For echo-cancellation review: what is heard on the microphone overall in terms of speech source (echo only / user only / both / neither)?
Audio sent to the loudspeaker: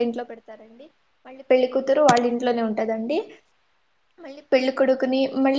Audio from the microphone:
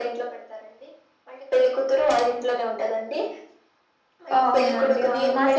both